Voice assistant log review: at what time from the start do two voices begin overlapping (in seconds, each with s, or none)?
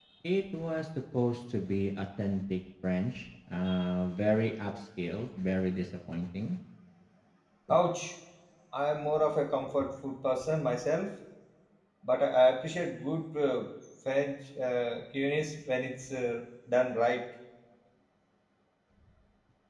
none